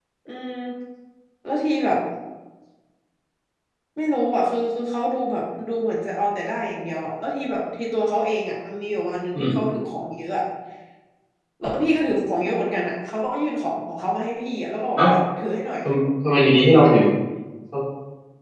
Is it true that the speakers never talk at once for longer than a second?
Yes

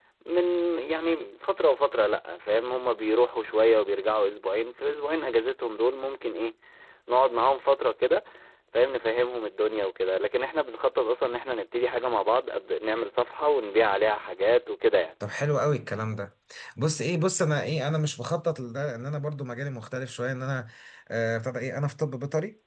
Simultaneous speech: No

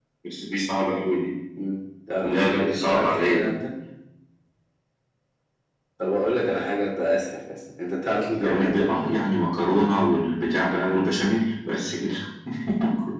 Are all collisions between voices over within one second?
No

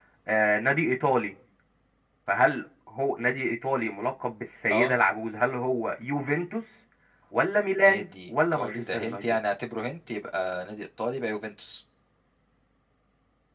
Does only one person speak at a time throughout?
No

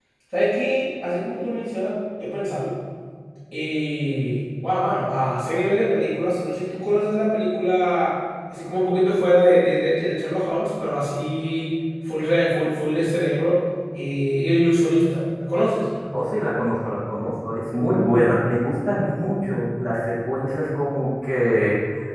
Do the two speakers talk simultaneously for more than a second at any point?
No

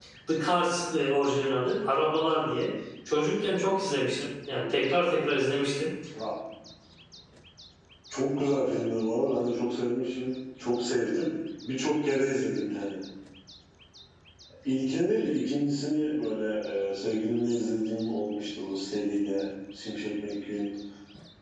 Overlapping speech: No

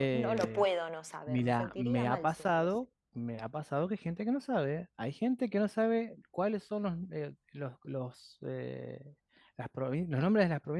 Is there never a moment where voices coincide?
No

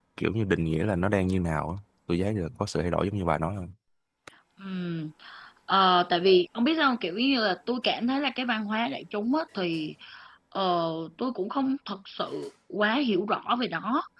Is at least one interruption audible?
No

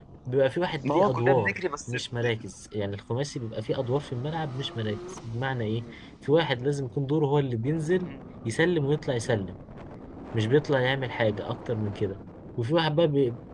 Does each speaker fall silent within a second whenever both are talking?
No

